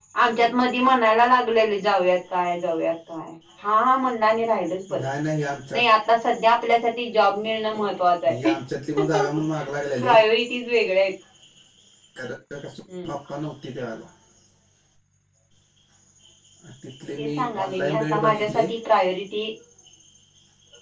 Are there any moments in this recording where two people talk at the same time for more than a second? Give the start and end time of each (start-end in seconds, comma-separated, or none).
17.2-18.7